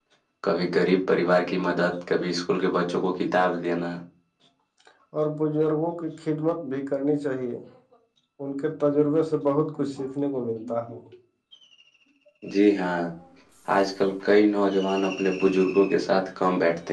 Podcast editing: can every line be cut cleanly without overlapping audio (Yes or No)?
Yes